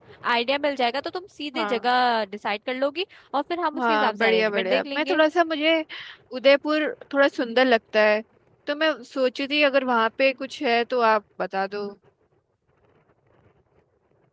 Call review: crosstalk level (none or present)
present